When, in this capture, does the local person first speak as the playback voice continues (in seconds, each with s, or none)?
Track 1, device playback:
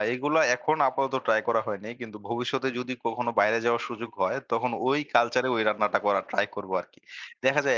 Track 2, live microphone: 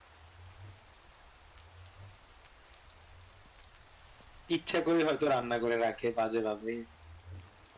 4.6 s